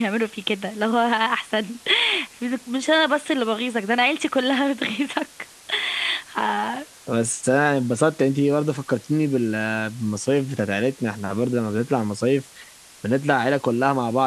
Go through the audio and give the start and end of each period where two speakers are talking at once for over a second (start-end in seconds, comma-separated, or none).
none